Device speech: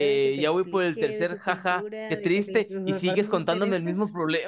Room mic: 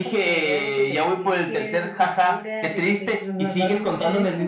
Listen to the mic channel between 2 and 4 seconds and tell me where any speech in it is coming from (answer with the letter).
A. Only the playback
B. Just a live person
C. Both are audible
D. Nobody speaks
A